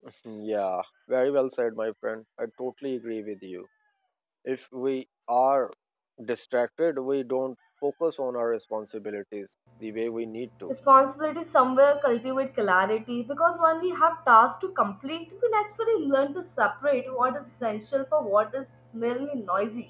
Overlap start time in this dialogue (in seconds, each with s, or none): none